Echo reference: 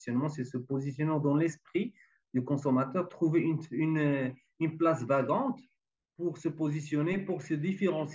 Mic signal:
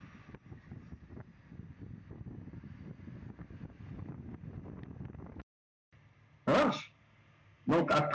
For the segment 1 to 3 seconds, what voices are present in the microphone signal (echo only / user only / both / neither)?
neither